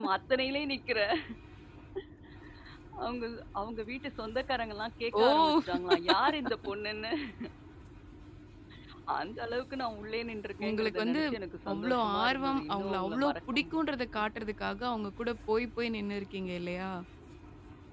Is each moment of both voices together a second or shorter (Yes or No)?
No